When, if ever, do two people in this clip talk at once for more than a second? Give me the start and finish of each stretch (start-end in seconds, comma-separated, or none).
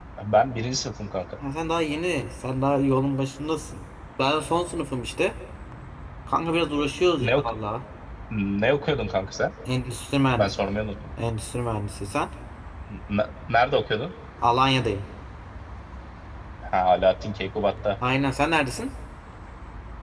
none